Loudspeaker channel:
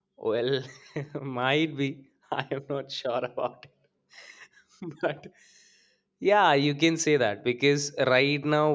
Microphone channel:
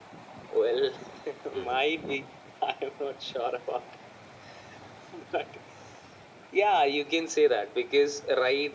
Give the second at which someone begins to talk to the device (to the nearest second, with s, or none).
2 s